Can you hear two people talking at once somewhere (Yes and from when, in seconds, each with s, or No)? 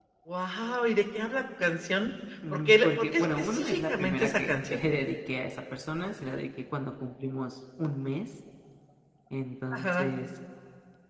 Yes, from 2.5 s